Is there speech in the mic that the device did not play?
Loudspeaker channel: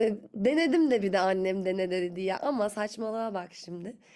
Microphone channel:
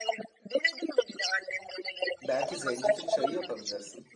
Yes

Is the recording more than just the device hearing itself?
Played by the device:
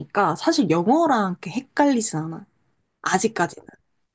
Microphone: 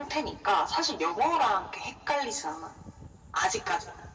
No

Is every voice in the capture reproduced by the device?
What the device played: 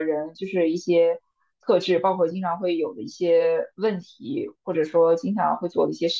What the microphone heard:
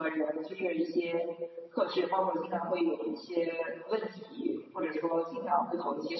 Yes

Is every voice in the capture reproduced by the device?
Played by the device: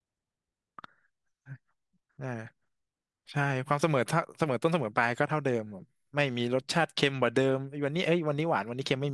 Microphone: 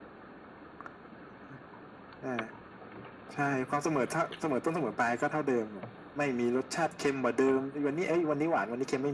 Yes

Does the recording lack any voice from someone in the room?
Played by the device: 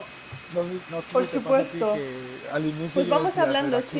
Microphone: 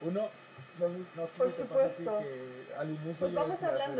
Yes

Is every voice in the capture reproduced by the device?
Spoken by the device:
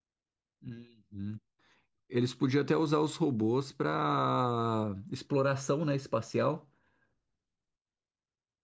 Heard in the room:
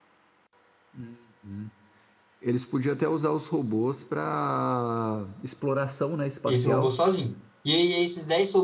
No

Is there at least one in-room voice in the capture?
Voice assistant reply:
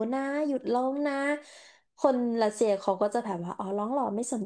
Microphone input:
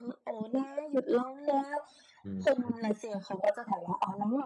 Yes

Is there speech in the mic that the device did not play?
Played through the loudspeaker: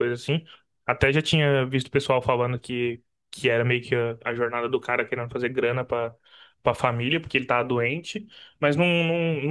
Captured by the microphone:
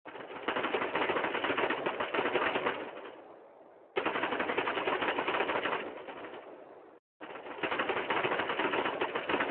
No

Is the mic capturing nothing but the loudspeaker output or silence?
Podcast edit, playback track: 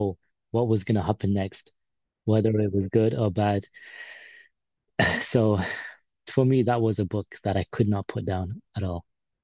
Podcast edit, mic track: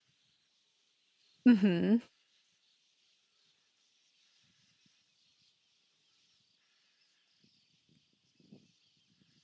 No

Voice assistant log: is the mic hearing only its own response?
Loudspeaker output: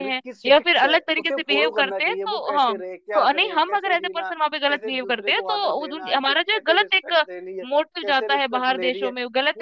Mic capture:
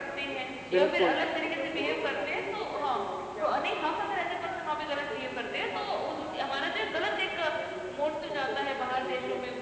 No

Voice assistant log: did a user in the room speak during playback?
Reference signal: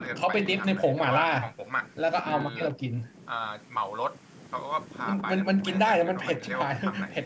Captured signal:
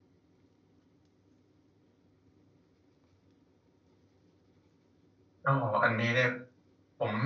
Yes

